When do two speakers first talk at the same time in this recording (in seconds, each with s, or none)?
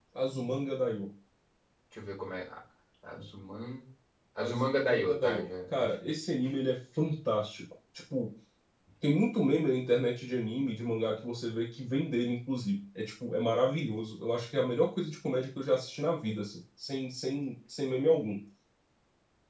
4.4 s